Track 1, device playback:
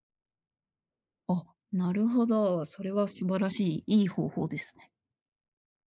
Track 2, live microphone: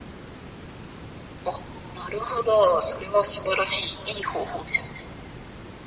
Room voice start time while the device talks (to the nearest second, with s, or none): none